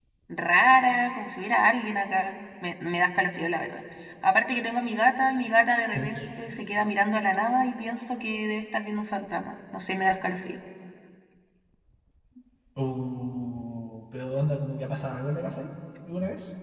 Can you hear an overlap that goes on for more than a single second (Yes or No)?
No